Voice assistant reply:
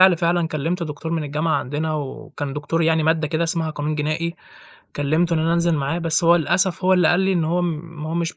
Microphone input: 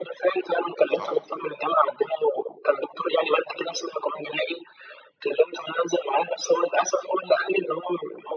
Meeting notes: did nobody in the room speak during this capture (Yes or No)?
No